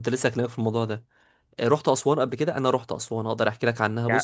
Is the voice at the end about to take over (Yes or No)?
Yes